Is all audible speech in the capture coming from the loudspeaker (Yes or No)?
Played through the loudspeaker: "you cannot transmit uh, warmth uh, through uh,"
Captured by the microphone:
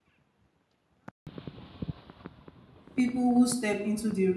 No